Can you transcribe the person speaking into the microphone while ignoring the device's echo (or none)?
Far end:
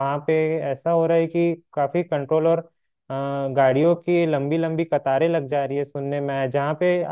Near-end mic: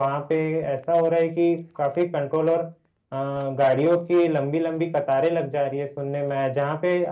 none